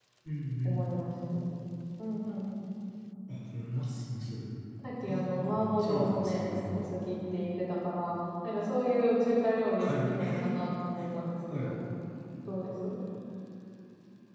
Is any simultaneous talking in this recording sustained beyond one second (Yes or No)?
Yes